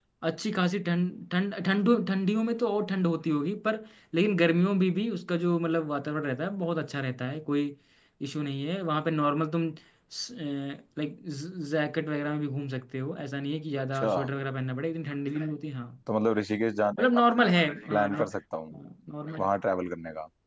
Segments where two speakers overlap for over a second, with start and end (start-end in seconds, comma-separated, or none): none